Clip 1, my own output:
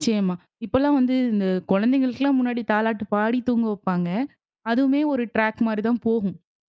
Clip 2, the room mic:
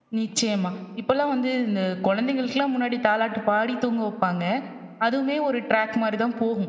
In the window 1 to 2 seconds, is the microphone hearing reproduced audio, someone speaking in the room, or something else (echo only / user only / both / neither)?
echo only